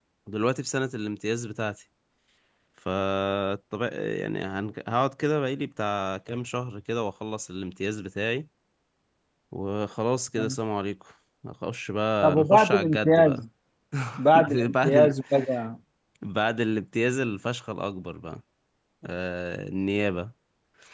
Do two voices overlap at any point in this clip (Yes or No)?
Yes